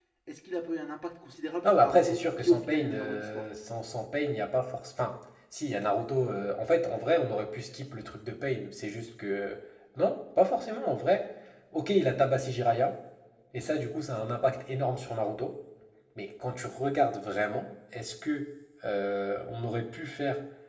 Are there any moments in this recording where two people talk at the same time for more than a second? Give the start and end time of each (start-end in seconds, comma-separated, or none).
1.6-3.5